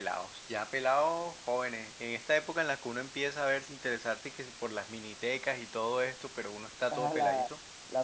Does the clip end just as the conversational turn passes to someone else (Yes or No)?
Yes